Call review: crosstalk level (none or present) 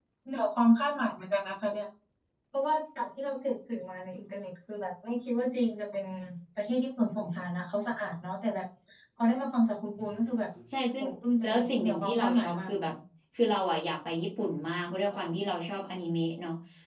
present